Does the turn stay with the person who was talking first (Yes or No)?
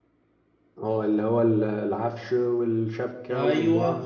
No